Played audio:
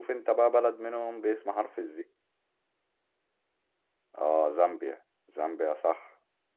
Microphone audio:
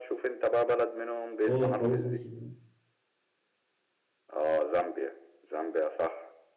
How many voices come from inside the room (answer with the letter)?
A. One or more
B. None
A